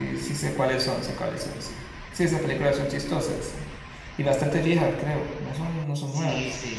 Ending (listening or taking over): taking over